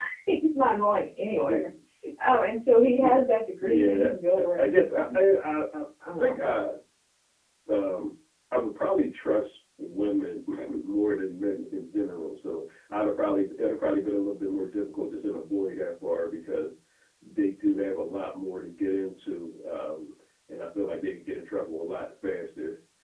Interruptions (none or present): present